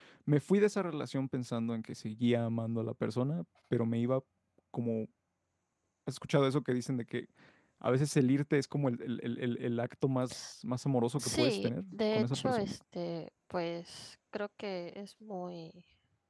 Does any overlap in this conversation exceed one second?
Yes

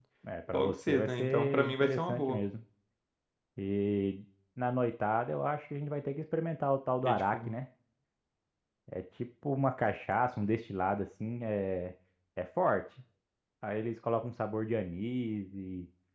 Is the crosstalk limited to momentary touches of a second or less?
No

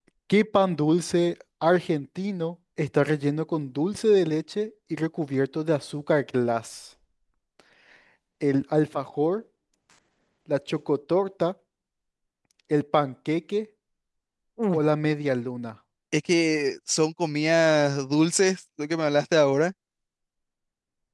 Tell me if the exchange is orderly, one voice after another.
Yes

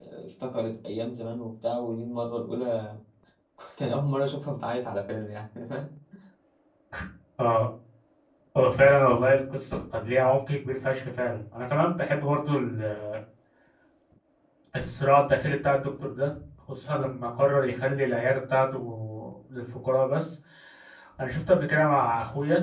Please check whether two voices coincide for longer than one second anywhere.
No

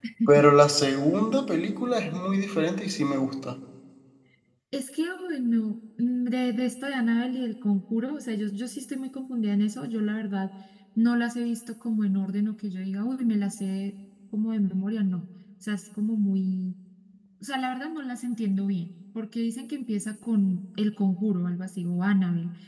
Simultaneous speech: No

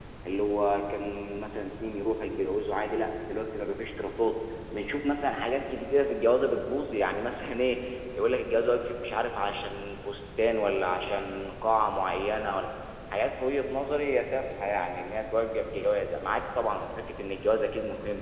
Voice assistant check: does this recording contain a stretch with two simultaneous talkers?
No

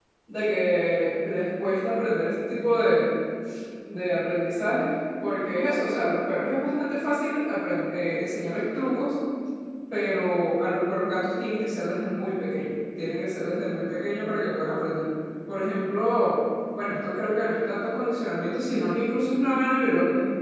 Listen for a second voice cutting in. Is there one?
No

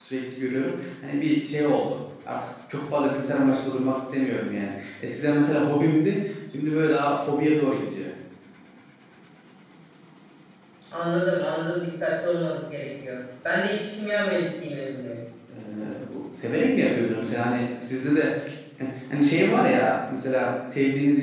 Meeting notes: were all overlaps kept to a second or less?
Yes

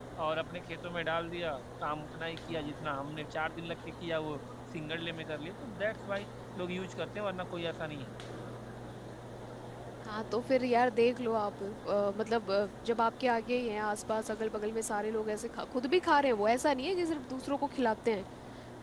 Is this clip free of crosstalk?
Yes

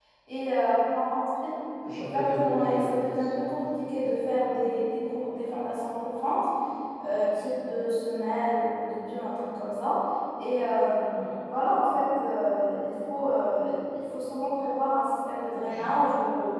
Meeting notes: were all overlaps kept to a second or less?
No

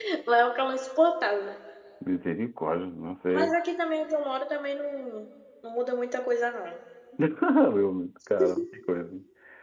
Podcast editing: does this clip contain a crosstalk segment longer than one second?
No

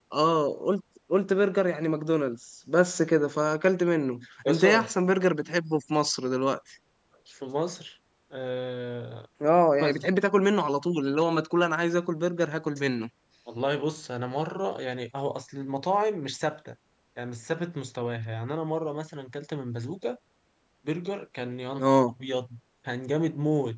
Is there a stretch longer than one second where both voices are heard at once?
No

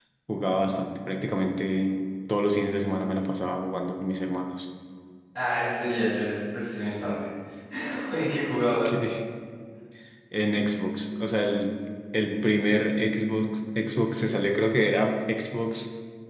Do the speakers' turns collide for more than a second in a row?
No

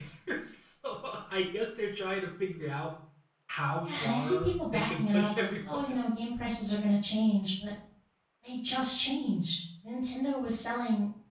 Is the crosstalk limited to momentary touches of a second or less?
No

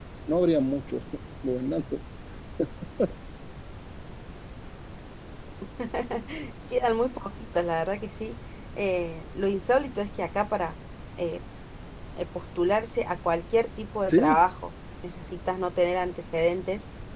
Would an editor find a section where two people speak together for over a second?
No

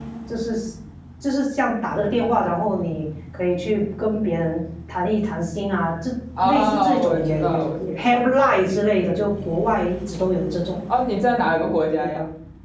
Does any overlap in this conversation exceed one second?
Yes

